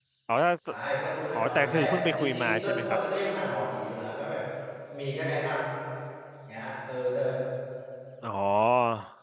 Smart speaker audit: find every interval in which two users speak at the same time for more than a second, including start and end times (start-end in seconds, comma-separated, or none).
1.4-3.0